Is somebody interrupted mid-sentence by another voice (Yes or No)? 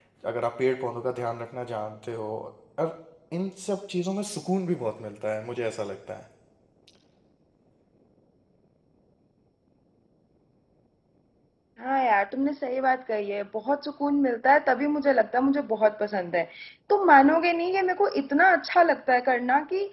No